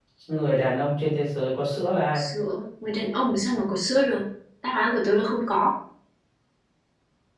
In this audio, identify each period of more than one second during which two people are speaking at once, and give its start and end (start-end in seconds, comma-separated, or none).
none